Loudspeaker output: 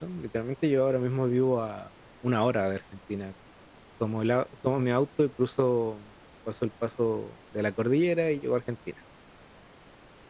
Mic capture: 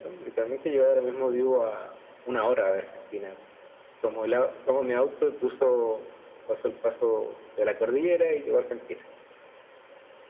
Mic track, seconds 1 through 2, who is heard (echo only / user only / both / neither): echo only